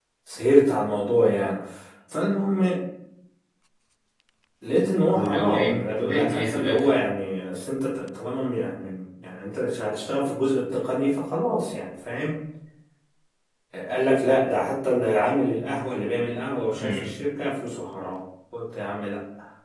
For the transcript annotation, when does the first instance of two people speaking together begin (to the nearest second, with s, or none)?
5 s